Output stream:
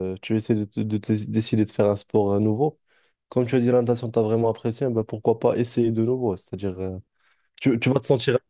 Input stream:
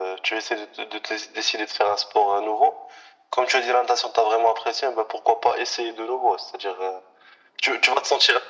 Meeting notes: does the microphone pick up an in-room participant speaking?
No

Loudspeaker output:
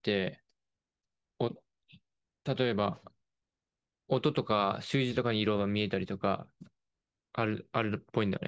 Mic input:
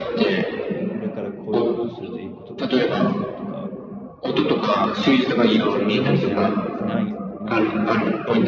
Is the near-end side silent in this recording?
No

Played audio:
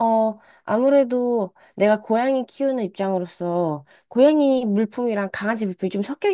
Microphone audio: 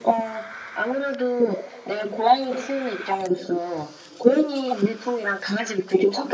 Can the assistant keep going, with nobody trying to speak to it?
Yes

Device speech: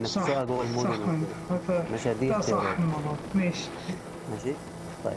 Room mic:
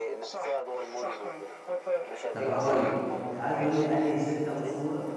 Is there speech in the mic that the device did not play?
Yes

